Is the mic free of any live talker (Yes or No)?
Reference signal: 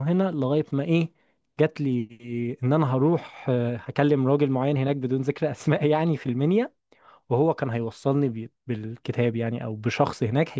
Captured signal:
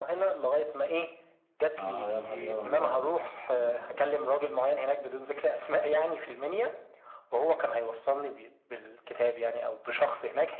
No